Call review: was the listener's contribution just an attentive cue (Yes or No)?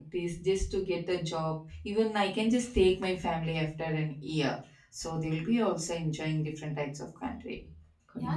No